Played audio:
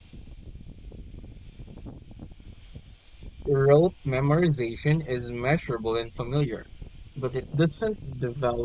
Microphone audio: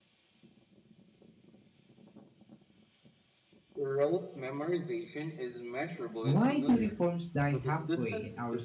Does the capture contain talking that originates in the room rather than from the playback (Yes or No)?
Yes